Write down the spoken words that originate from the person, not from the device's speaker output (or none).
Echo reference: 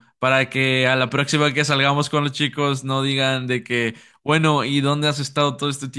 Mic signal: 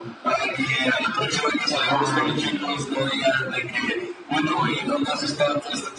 Ay,